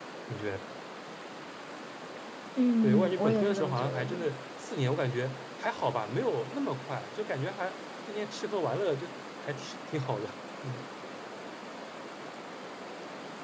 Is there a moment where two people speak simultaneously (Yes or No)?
Yes